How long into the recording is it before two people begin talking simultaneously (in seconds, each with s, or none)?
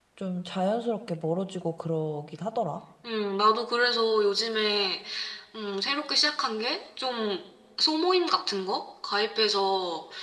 none